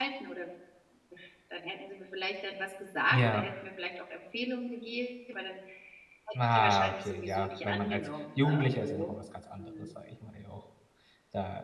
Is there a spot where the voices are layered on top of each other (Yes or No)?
Yes